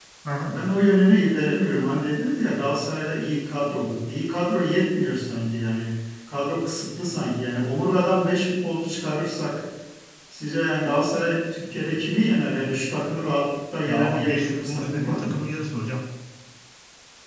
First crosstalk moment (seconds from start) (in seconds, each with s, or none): 13.8 s